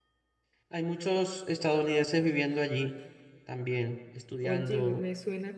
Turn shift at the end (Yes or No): Yes